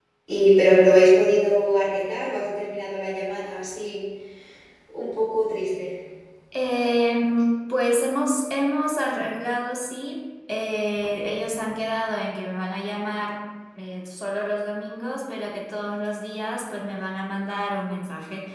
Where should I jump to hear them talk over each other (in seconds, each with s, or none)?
none